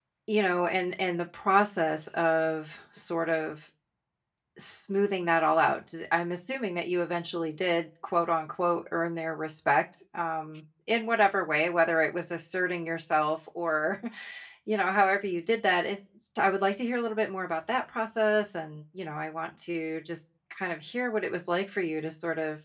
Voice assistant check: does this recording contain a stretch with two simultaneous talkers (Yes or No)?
No